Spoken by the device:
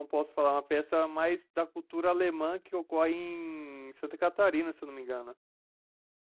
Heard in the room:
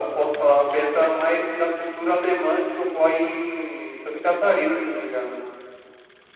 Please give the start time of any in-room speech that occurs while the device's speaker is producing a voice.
none

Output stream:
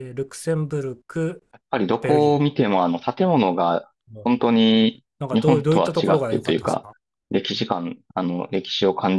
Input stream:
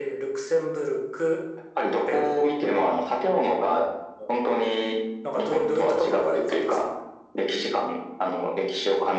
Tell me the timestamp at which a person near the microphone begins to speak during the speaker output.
none

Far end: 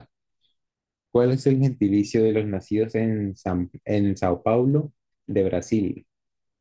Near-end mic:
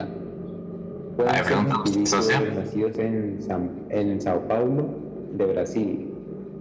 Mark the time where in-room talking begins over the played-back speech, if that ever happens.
1.2 s

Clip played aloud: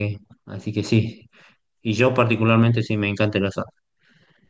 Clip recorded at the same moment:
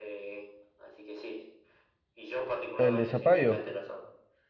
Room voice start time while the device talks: 2.8 s

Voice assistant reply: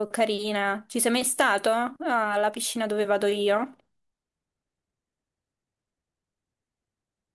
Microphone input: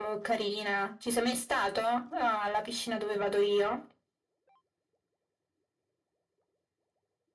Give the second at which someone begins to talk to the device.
none

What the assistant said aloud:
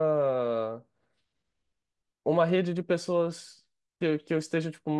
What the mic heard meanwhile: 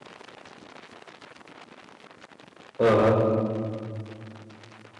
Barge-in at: 2.8 s

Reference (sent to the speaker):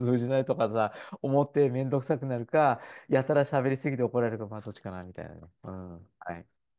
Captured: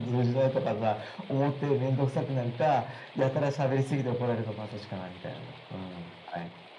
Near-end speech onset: none

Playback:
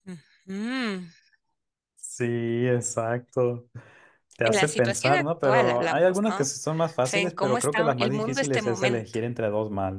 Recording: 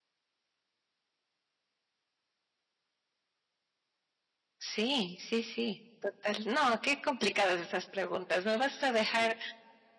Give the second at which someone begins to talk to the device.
4.6 s

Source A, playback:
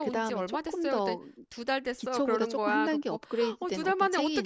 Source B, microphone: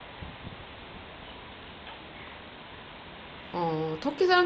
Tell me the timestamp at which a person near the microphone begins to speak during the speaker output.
3.5 s

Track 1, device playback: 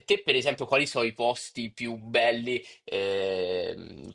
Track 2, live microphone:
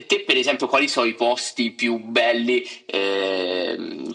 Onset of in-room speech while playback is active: none

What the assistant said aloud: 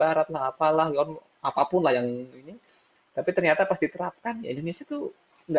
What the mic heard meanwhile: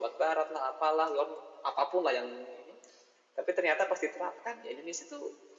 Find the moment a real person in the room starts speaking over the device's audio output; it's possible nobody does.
none

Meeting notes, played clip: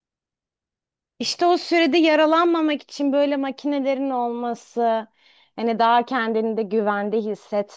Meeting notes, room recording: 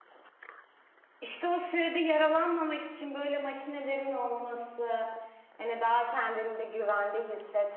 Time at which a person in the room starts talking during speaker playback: none

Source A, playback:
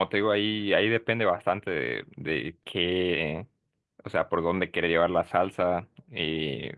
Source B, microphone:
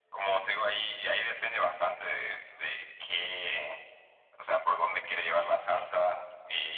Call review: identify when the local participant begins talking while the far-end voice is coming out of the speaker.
none

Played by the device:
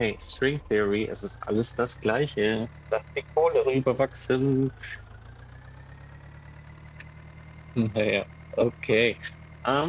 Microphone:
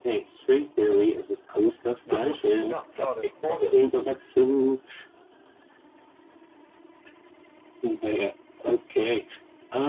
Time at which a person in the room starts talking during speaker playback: 2.0 s

